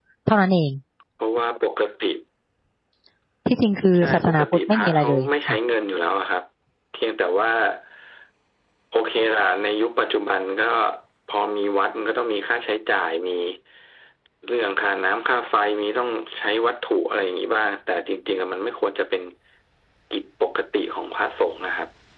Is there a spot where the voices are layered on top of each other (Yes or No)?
Yes